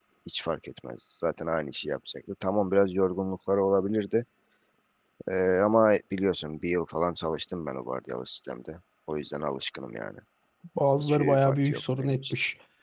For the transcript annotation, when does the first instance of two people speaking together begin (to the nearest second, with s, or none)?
11 s